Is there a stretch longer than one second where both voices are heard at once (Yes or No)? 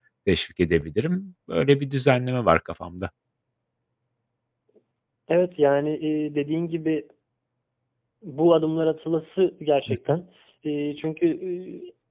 No